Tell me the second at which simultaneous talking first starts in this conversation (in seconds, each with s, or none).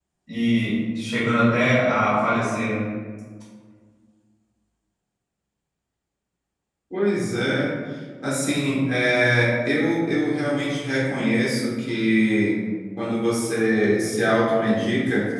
none